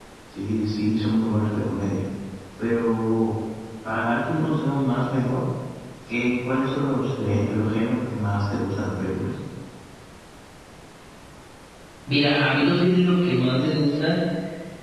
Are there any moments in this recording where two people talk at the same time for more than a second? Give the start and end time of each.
none

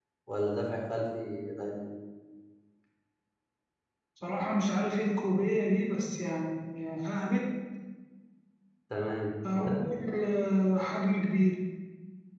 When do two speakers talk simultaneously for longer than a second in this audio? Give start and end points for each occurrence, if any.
none

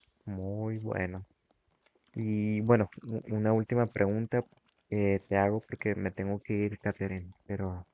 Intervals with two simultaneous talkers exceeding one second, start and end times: none

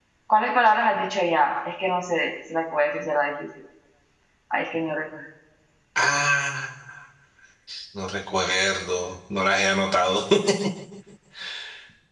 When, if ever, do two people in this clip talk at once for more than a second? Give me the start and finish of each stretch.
none

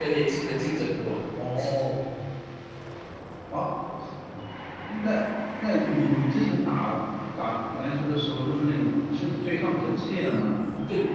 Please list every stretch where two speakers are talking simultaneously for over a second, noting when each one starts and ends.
none

